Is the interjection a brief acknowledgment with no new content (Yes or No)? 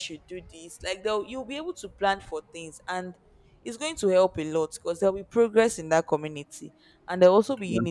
Yes